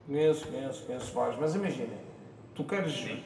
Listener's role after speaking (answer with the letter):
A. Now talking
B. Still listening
B